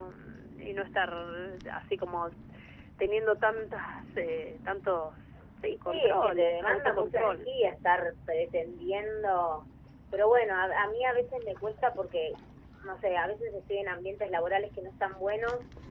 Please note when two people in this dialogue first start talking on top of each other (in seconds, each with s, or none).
5.9 s